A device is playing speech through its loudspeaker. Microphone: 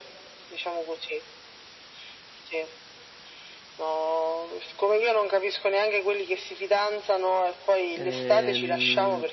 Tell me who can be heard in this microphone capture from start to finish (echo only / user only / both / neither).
both